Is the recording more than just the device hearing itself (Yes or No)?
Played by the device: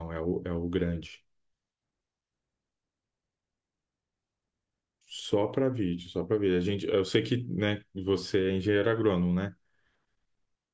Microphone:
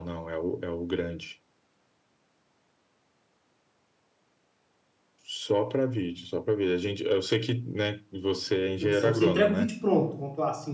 Yes